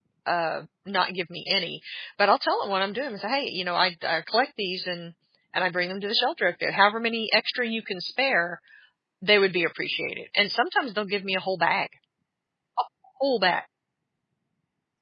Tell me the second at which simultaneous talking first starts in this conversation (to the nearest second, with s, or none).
none